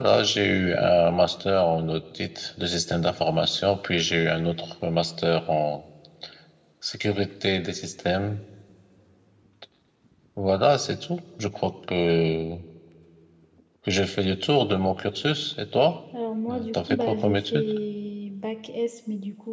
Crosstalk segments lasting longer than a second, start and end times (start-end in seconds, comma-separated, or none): 16.5-17.7